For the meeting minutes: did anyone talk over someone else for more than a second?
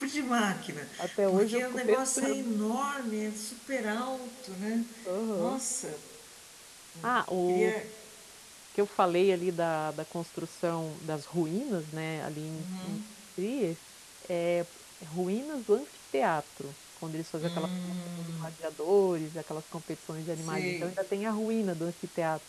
Yes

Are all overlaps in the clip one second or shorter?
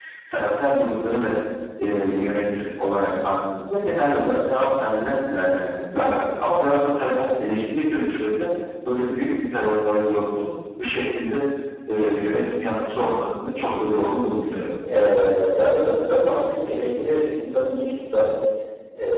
Yes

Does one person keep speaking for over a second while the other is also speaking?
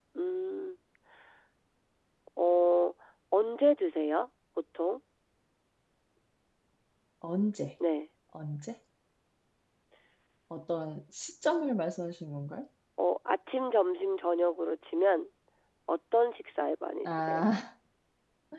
No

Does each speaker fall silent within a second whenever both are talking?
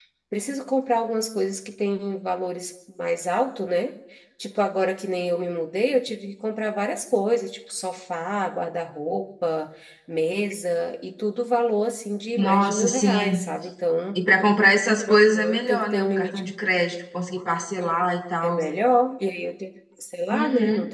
No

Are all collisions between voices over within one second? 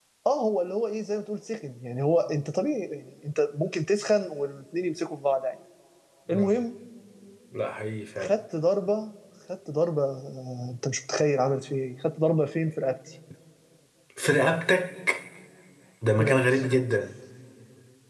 Yes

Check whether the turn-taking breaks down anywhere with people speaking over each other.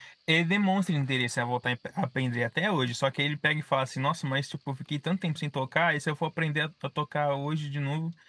No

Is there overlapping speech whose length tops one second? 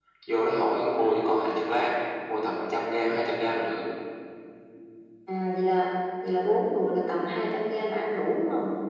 No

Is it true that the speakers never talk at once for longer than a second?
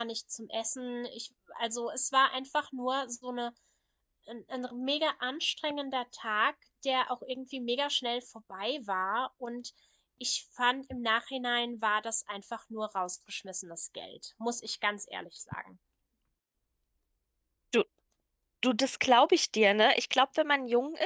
Yes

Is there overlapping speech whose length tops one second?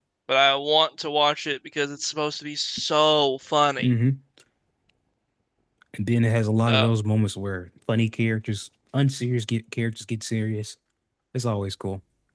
No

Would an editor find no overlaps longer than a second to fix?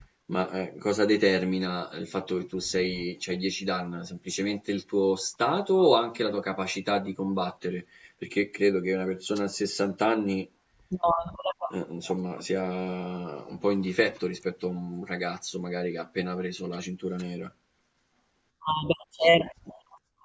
Yes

